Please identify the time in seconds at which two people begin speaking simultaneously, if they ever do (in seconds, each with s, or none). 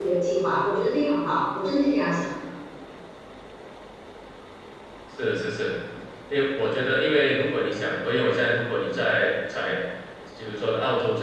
none